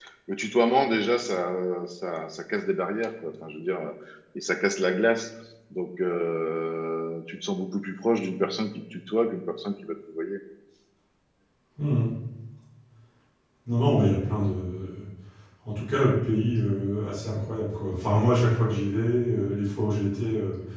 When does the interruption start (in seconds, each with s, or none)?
none